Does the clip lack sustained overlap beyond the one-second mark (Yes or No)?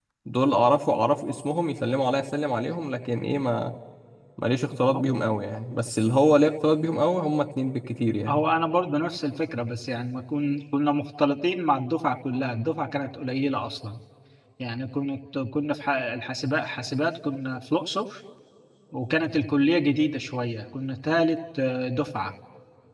Yes